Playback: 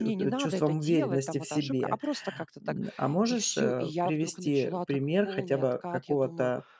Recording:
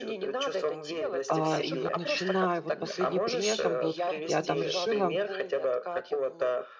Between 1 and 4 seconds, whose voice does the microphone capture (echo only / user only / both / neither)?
both